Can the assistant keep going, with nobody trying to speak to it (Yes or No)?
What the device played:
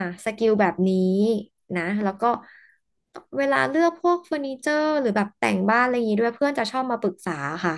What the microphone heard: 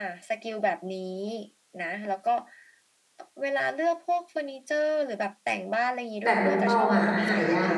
No